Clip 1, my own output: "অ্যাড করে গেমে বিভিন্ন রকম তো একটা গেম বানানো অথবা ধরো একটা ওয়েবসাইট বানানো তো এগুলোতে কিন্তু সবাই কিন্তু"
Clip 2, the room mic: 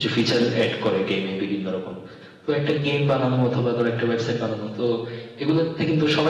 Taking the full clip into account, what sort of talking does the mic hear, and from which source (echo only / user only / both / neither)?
echo only